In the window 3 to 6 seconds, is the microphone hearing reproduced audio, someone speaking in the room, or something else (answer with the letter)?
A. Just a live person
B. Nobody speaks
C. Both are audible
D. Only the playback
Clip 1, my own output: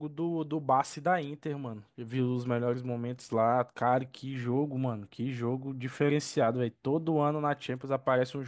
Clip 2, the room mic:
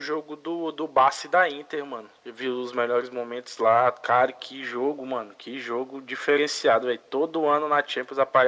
D